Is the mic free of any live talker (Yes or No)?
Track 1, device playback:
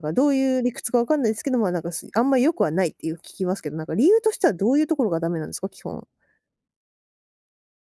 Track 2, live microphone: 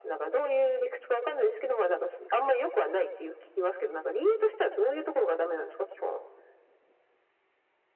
Yes